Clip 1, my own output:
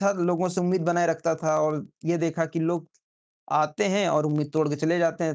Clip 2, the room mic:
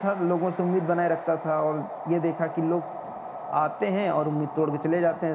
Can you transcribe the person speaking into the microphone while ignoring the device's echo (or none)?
none